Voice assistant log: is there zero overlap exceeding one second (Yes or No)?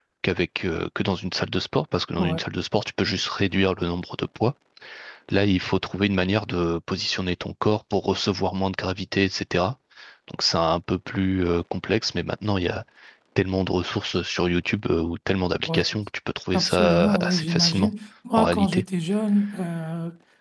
No